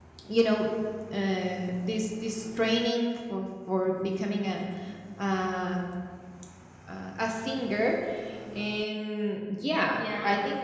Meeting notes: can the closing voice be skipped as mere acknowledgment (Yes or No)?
Yes